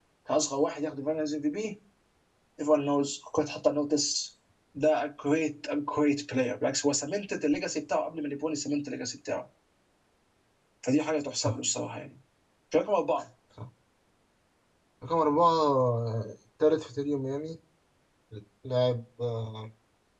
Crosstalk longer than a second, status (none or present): none